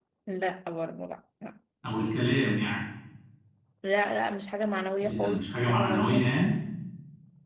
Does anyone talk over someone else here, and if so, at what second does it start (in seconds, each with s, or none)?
5.0 s